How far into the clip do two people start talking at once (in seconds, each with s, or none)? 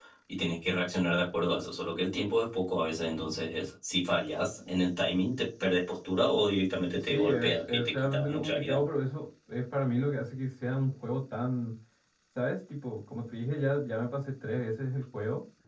6.9 s